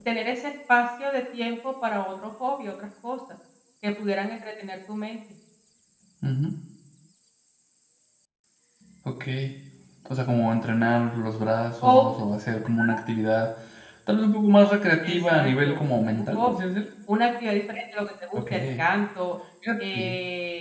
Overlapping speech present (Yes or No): Yes